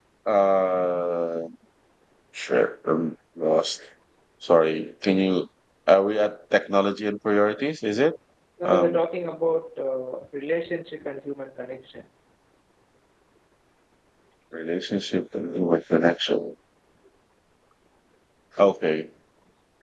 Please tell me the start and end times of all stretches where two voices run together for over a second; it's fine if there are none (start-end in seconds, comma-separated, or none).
none